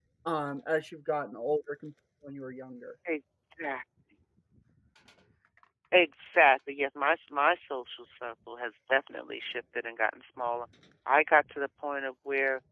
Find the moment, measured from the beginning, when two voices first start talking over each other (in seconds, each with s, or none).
none